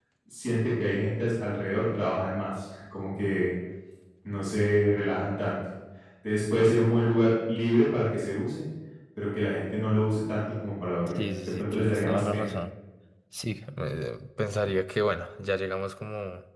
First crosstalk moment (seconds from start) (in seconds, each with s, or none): 11.1 s